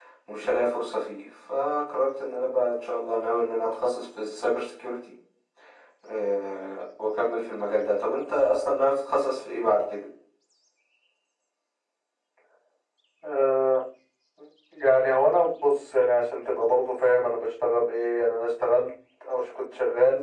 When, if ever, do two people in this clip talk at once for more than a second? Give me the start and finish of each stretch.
none

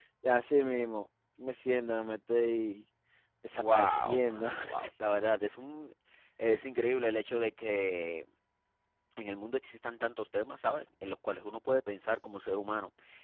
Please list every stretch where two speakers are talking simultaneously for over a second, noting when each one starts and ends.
3.5-4.9

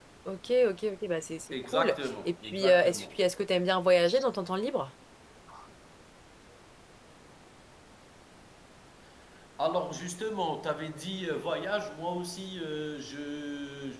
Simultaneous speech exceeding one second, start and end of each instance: 1.5-3.0

